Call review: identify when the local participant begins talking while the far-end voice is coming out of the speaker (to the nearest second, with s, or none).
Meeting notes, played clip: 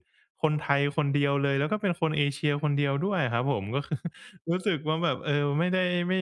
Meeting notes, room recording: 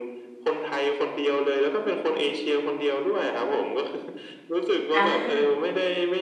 5 s